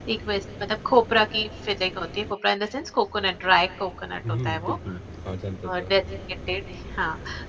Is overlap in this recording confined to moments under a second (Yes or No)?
Yes